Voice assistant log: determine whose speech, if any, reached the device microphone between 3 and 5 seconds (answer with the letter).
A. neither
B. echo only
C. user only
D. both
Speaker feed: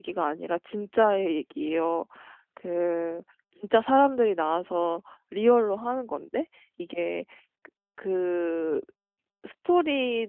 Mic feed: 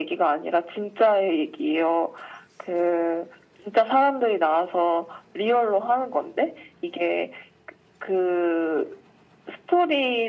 B